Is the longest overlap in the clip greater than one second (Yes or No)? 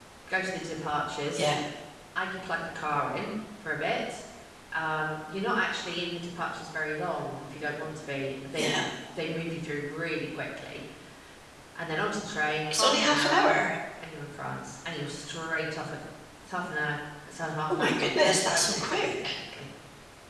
Yes